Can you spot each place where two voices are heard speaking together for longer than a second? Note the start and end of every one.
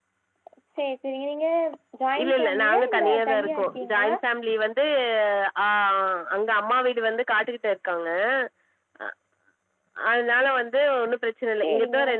2.2-4.2

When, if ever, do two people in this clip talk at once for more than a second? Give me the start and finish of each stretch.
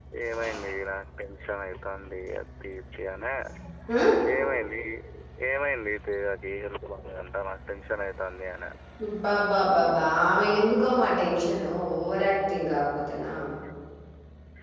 none

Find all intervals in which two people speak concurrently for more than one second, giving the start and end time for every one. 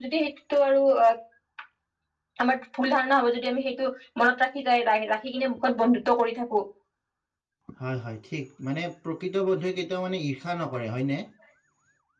none

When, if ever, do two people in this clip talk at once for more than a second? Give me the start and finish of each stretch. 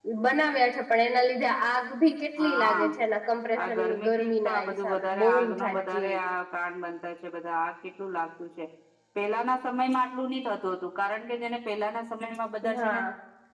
3.7-6.2

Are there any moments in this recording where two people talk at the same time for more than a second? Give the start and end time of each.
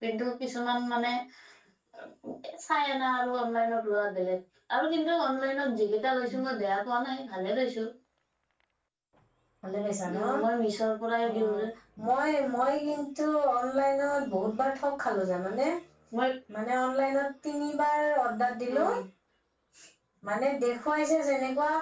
none

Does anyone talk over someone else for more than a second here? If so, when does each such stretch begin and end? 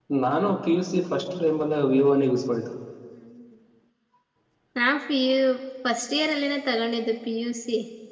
none

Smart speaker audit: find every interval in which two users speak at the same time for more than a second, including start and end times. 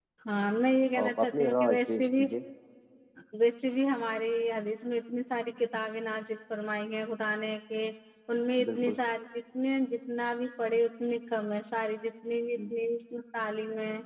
1.0-2.2

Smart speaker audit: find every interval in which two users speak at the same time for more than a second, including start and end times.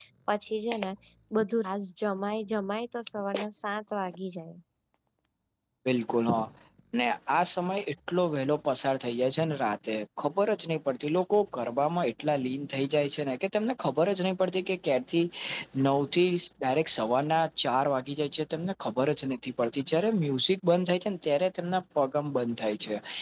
none

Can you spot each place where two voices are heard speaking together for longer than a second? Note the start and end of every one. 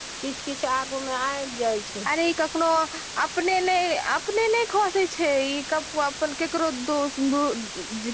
none

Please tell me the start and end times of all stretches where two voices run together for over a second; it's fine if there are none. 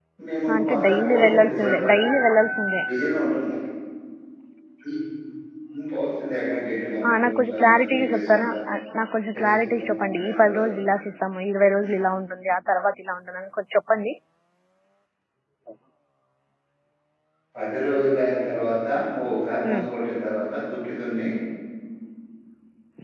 0.6-2.0, 7.2-8.5, 9.4-10.6

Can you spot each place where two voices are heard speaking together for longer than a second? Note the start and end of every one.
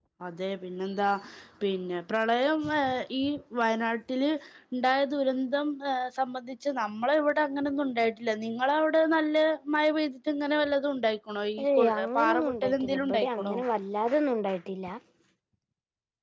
11.8-13.6

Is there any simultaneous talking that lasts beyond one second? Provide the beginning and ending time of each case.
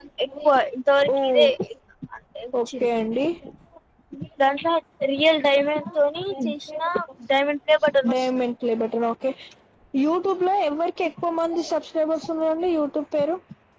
none

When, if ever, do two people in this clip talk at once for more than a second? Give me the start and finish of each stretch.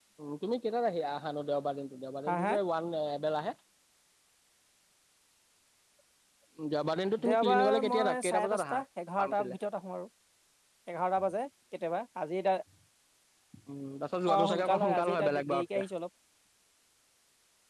7.3-8.8, 14.3-15.8

